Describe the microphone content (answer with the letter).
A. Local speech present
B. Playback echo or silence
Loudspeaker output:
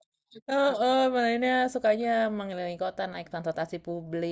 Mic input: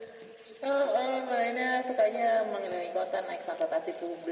B